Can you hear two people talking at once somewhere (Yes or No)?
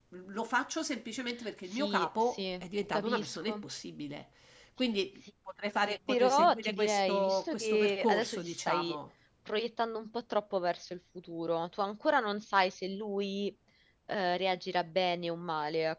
Yes